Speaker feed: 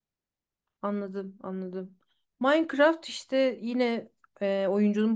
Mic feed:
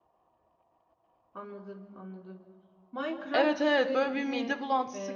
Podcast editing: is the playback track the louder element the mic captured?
No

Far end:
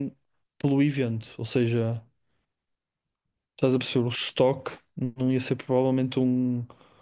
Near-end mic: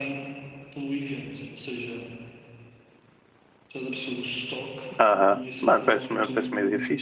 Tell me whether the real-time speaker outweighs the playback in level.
Yes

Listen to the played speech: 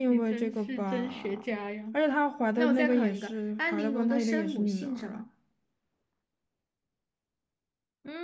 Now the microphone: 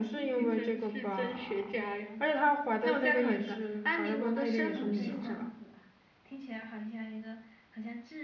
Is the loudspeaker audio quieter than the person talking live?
No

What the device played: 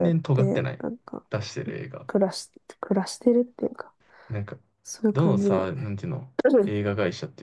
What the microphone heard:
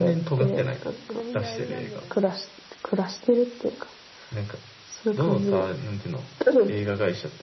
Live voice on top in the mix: No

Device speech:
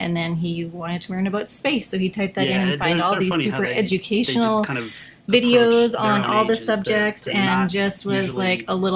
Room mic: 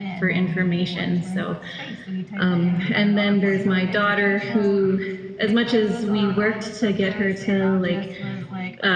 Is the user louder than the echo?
Yes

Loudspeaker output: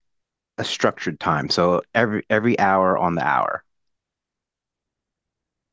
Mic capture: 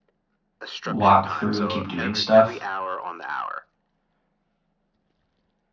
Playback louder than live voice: No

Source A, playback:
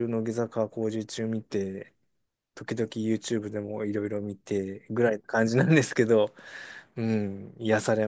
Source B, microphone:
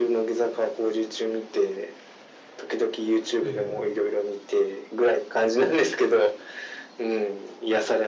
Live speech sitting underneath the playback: Yes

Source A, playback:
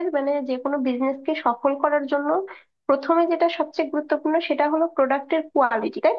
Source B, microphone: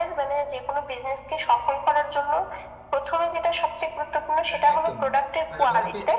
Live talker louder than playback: No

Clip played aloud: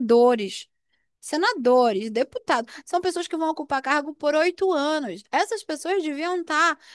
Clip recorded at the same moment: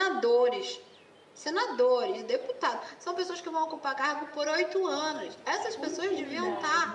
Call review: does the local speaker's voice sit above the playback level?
No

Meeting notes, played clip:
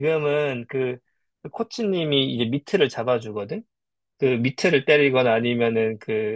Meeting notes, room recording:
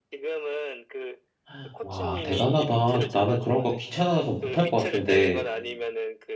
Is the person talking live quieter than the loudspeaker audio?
No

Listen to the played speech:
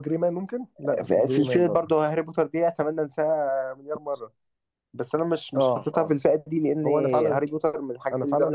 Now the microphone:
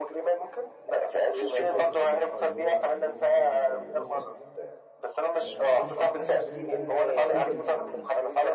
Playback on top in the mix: Yes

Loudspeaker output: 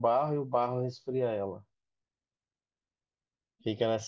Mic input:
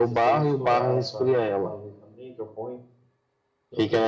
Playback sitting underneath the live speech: No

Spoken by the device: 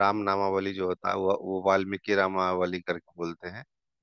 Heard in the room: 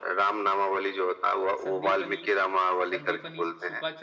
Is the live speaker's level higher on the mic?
No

